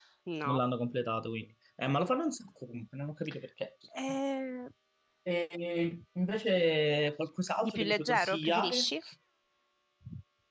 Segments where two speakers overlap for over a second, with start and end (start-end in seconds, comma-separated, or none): 7.6-8.9